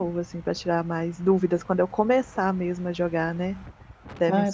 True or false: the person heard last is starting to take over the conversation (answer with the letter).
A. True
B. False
A